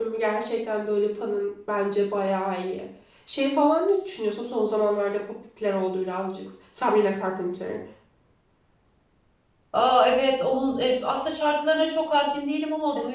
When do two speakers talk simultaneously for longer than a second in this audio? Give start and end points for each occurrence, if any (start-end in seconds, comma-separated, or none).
none